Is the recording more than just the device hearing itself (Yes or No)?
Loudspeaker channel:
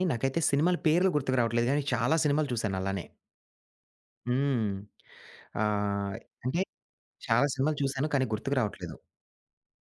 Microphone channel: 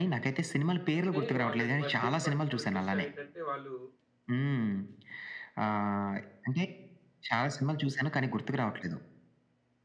Yes